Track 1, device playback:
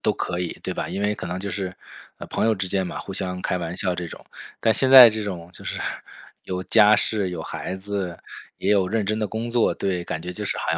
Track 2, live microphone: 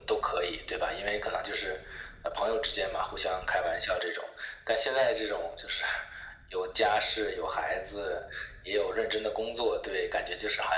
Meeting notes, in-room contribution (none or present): none